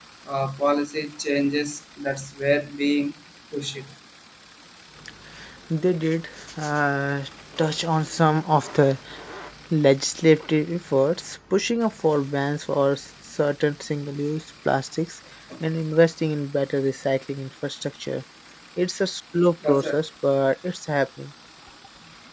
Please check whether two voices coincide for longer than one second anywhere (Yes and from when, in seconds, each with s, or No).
No